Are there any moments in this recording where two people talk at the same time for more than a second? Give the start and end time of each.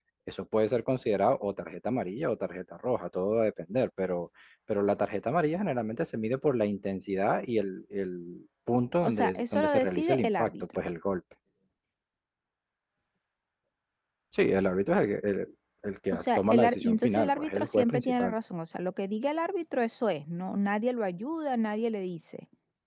9.0-10.5, 16.1-18.3

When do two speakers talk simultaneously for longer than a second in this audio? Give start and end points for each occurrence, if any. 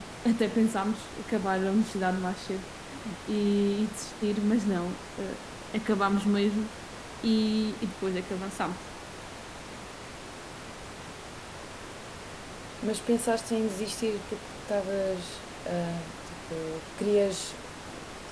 none

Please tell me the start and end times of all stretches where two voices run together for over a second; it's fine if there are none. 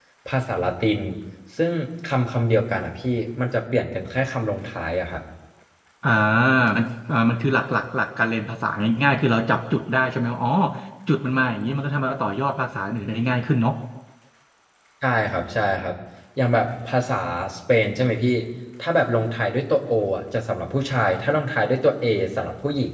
none

